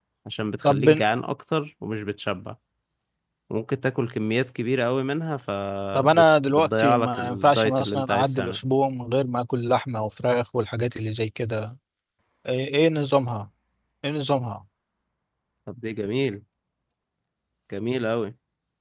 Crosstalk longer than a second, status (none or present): present